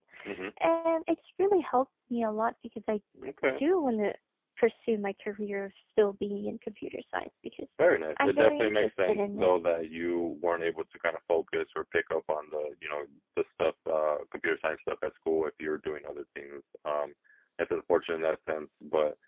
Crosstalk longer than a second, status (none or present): present